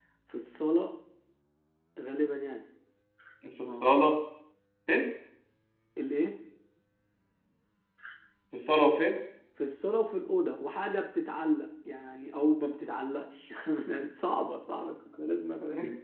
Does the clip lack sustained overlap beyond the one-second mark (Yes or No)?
Yes